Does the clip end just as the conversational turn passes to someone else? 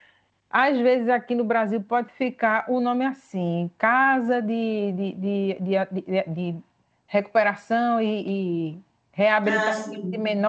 No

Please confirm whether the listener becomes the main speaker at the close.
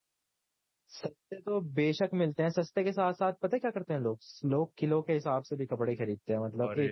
No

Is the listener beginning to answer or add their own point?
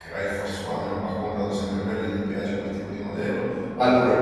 No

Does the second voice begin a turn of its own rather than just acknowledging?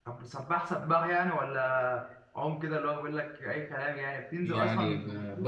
Yes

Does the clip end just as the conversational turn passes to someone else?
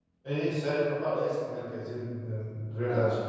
Yes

